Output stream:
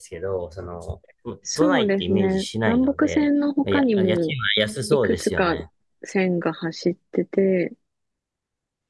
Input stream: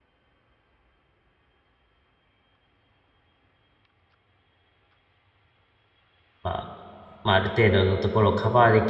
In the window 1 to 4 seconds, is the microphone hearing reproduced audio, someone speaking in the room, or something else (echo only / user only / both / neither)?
neither